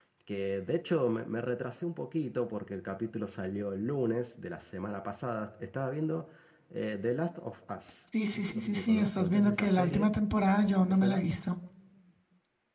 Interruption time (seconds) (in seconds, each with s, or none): 8.5 s